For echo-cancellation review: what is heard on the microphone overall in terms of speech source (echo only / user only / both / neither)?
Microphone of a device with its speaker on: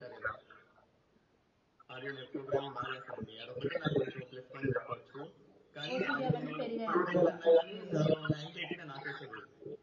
both